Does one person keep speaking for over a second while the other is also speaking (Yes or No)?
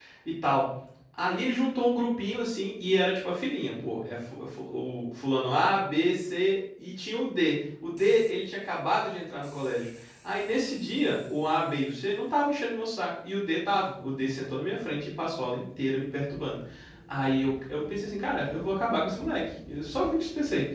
No